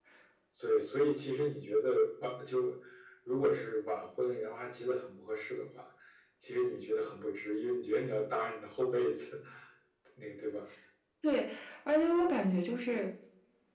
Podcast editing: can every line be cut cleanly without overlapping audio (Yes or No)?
Yes